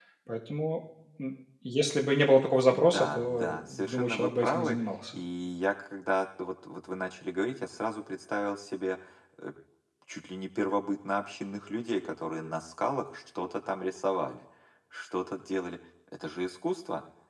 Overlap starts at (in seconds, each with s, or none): 2.7 s